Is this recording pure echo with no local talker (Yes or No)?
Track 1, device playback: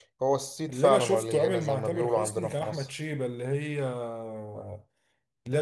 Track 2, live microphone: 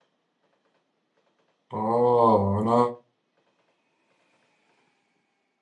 No